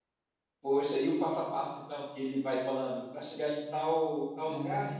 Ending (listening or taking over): listening